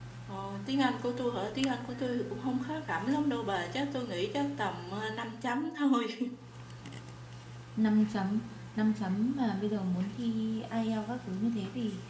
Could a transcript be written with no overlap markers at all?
Yes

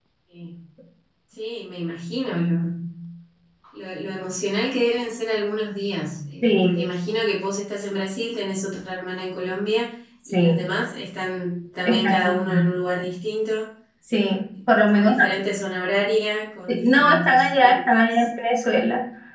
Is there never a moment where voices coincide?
No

